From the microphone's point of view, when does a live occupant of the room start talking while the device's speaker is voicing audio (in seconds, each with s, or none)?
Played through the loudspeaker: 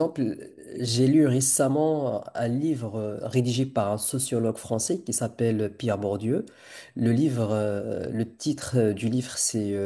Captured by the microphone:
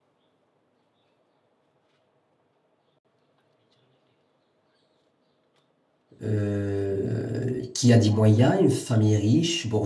6.2 s